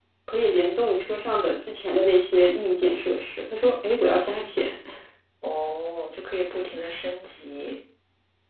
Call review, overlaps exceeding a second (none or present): none